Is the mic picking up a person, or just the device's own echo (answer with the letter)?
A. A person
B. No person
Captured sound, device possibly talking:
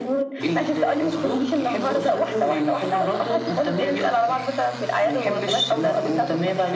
B